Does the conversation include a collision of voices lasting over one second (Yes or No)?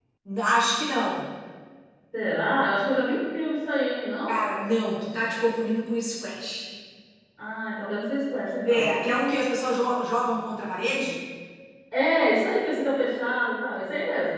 No